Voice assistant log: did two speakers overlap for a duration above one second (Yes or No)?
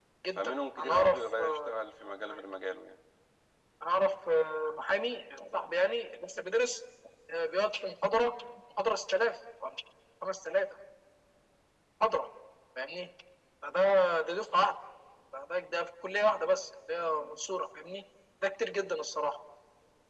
Yes